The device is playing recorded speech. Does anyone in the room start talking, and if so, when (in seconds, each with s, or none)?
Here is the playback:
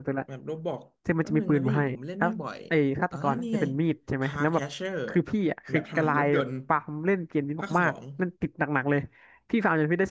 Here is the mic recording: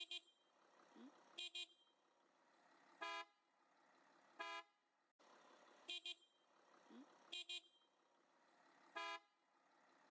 none